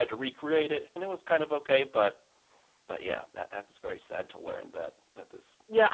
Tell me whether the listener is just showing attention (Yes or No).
No